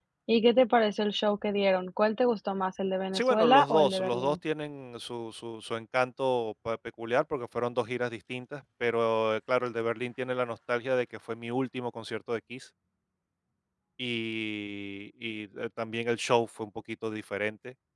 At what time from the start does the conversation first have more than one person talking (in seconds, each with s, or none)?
3.1 s